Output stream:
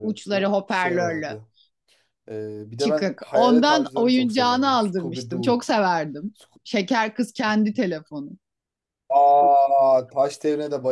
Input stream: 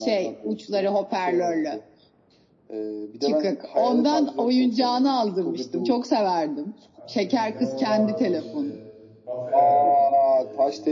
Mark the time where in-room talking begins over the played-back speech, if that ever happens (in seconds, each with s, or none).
6.9 s